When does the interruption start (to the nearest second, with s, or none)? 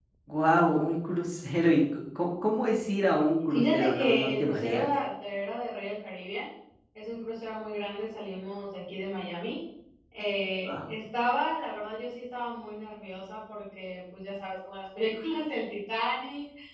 4 s